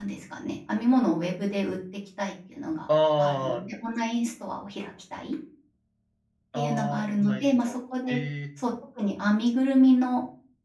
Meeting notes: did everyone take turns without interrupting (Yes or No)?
No